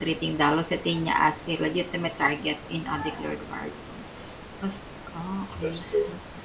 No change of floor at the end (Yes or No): Yes